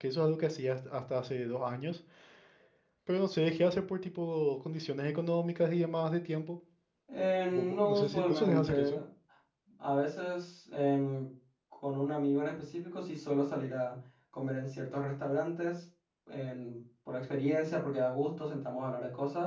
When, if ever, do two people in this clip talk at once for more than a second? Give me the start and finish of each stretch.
7.5-9.0

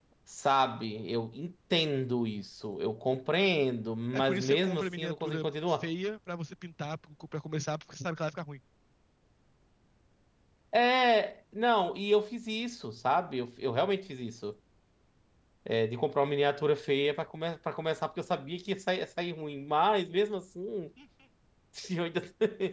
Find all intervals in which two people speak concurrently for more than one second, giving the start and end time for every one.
4.1-5.9

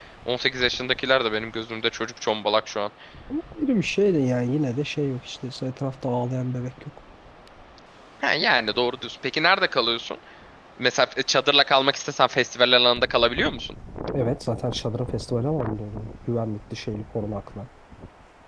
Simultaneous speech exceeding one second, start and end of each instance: none

